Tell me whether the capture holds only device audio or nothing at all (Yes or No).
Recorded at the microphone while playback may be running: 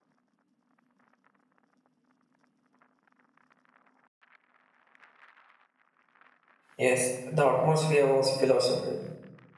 No